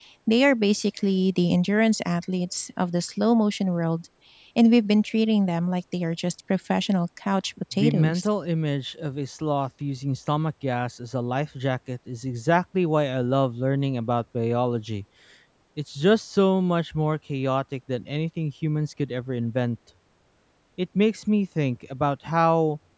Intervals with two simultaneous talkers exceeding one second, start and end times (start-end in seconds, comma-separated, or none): none